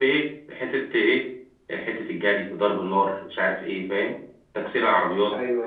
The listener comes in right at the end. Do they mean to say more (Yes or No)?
No